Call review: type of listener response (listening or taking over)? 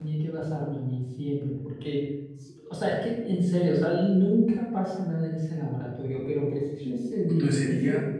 taking over